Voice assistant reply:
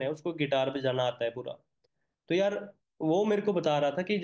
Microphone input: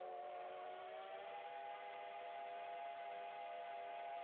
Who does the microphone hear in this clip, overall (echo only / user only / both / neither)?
neither